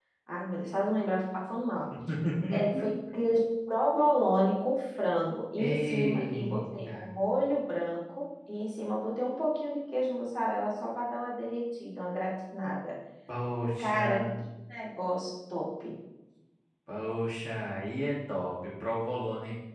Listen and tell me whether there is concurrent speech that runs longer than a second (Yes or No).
Yes